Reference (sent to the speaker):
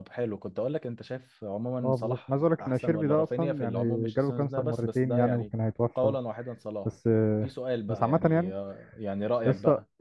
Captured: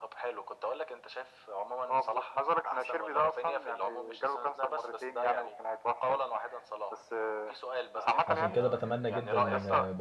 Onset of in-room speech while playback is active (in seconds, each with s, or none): 8.3 s